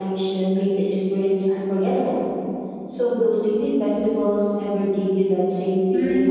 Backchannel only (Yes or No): No